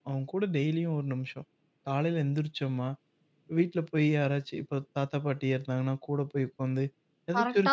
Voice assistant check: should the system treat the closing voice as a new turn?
No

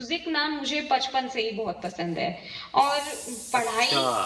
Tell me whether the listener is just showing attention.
Yes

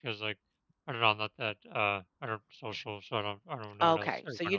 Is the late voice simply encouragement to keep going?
No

